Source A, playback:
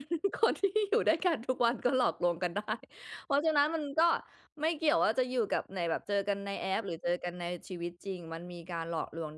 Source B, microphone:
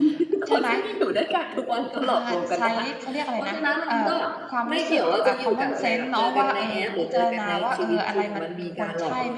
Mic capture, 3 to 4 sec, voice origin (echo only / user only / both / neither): both